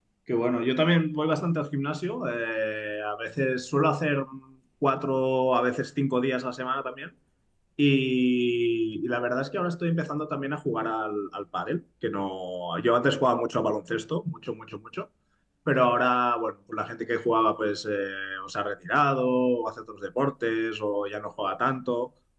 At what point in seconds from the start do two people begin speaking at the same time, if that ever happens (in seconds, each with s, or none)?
none